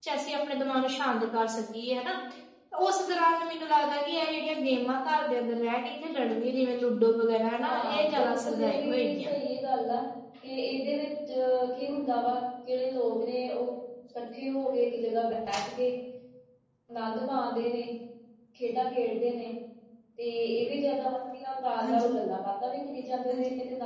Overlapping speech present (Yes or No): Yes